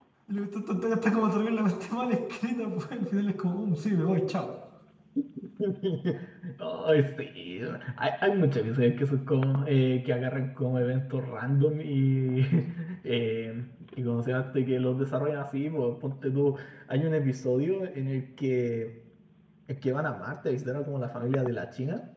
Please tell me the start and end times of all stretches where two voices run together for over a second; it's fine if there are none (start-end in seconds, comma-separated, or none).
none